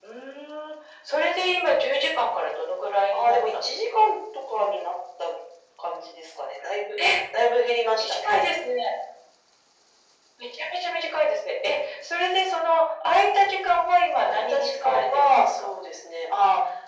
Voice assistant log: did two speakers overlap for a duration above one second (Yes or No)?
Yes